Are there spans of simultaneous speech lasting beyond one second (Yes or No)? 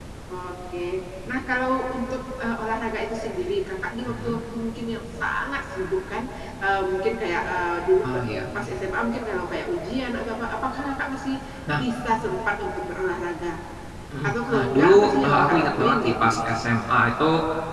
Yes